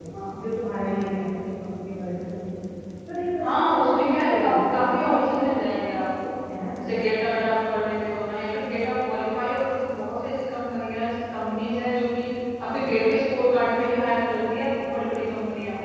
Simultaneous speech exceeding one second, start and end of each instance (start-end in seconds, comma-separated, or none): 3.4-5.4